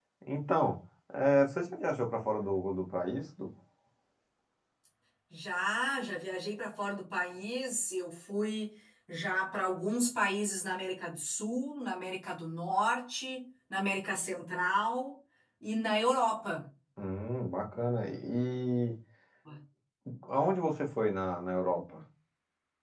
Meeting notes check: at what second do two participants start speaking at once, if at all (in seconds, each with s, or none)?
none